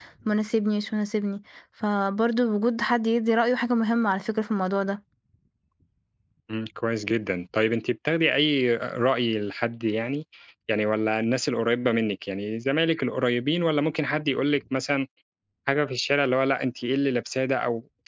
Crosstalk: none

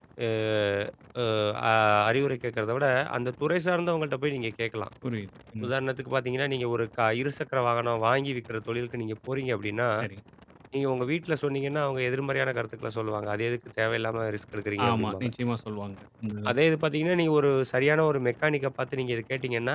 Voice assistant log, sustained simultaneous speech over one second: none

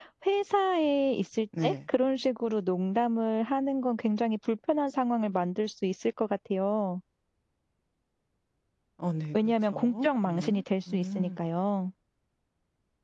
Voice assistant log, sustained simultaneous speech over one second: present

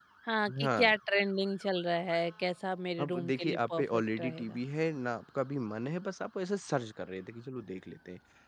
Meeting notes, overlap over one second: present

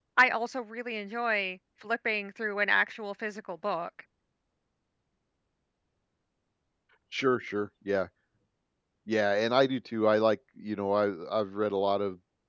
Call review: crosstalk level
none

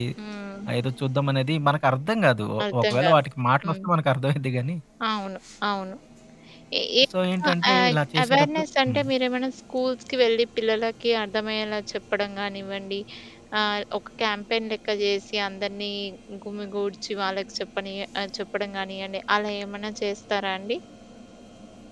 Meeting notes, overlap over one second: present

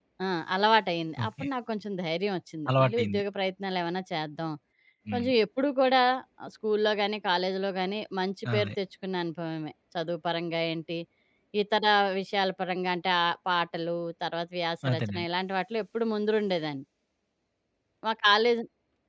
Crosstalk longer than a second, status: none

